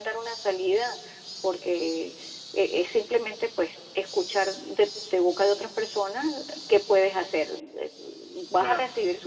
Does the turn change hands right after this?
No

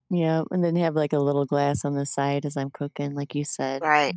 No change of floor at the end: No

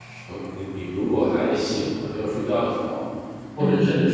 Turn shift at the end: No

